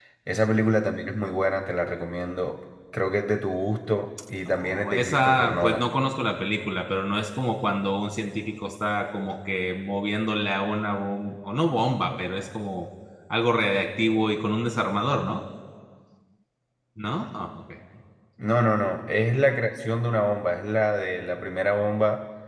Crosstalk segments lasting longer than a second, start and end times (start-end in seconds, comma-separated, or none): 4.4-5.9